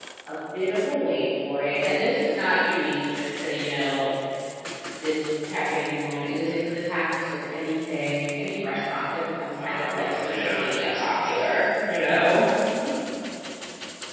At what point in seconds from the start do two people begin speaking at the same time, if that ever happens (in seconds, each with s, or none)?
9.6 s